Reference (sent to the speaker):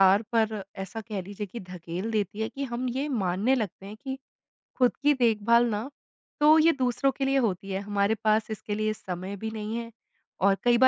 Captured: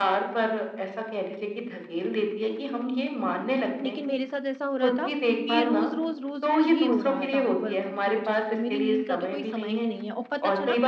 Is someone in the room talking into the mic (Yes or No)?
Yes